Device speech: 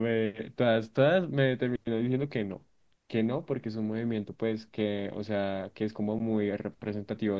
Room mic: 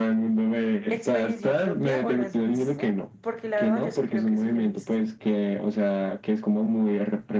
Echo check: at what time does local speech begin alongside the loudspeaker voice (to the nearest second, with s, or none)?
1 s